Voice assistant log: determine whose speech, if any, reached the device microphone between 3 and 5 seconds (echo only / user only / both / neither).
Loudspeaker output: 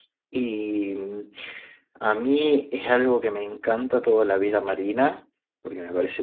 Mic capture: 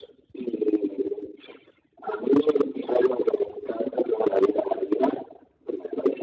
echo only